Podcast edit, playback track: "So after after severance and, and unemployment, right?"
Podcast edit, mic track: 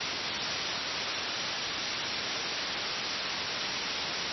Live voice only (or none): none